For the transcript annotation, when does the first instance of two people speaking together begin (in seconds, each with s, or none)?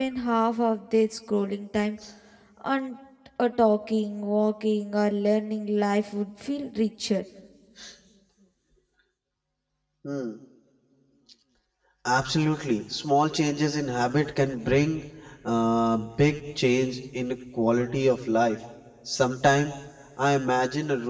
none